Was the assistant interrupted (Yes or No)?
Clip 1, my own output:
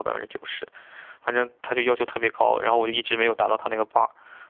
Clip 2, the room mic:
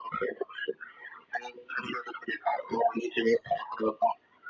No